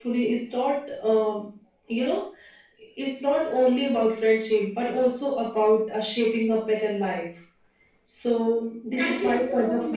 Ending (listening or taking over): taking over